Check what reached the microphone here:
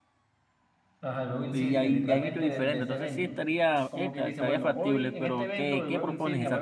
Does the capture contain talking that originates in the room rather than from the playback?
Yes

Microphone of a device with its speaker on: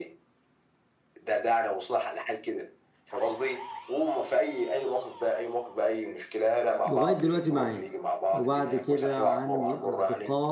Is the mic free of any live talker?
No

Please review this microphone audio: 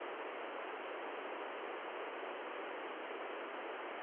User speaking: No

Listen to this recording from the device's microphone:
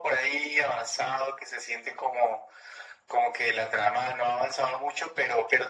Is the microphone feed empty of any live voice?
Yes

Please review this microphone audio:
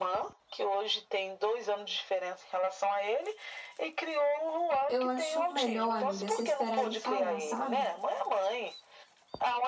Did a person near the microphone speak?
Yes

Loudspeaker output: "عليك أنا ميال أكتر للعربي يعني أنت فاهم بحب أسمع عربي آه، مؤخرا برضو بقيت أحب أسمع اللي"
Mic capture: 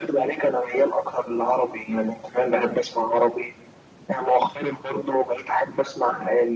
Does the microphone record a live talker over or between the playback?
No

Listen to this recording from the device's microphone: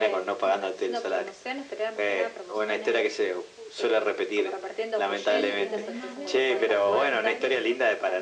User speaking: Yes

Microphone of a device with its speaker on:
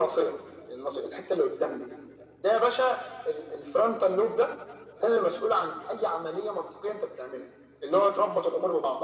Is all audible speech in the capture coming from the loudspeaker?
Yes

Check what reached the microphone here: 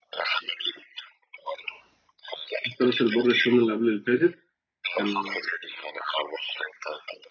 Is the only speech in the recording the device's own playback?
No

